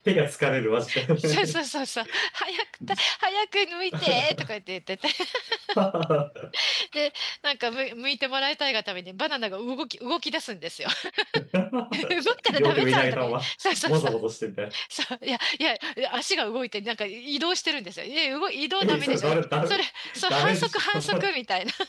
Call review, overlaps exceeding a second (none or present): present